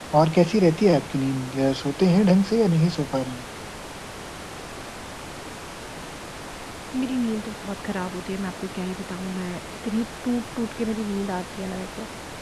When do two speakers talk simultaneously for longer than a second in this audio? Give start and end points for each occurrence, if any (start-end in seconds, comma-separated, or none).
none